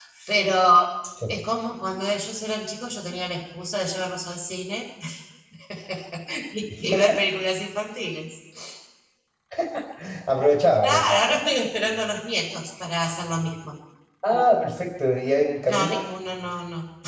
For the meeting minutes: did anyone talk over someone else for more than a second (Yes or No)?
No